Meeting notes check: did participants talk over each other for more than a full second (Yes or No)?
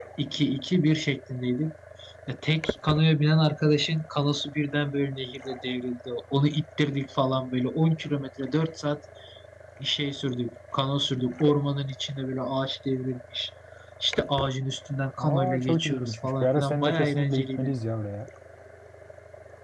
Yes